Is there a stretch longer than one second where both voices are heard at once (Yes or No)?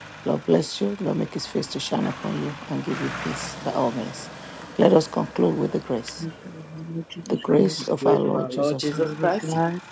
Yes